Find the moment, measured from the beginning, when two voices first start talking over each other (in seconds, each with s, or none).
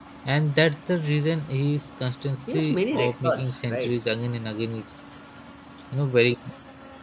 2.5 s